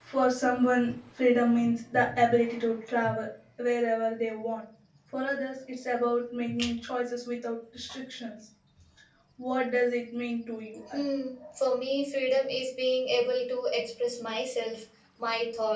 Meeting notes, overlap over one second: none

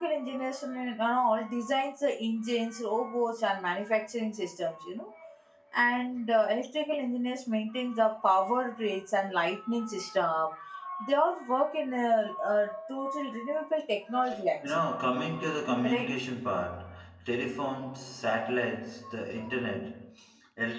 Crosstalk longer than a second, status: none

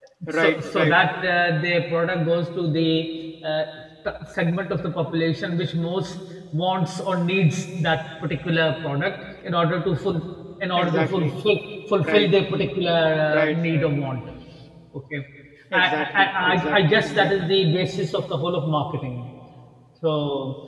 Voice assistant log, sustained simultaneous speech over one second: present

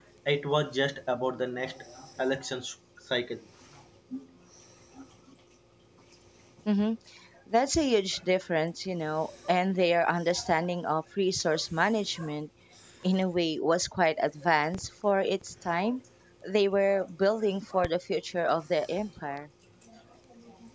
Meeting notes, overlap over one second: none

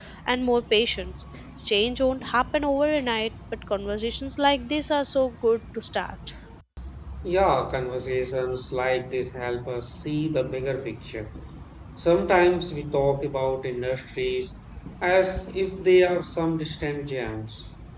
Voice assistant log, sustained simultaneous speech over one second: none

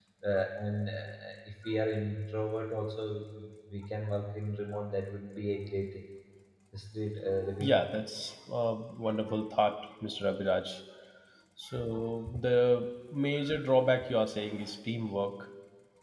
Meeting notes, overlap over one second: none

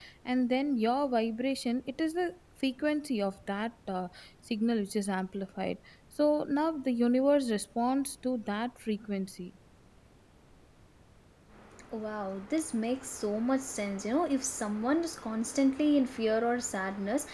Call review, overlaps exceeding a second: none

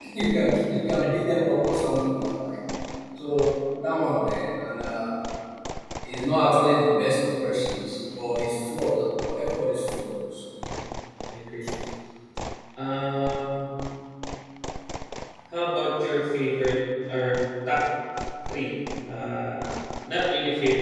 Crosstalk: none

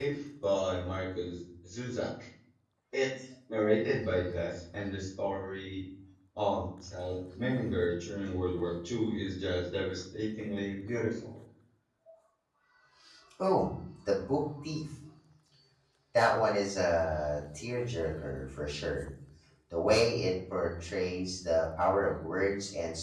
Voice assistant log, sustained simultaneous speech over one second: none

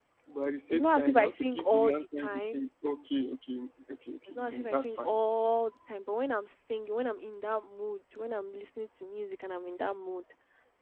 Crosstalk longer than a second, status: present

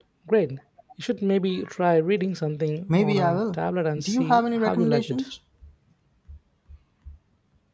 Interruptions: present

